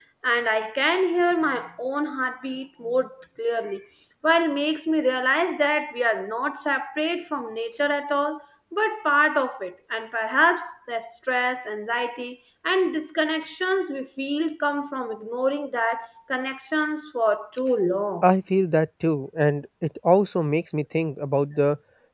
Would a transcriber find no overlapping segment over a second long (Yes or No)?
Yes